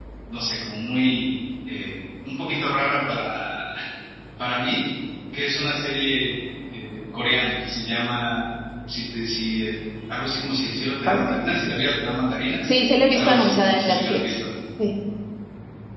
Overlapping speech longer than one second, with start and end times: 13.1-14.4

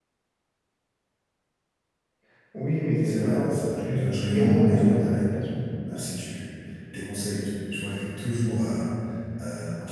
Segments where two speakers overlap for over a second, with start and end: 3.0-5.3

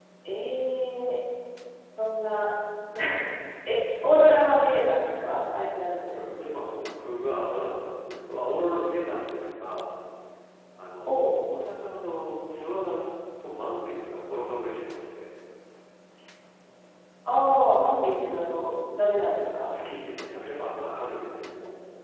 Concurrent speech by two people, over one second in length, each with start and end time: none

